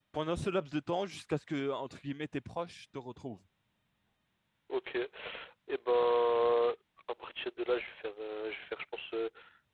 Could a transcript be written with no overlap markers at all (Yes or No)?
Yes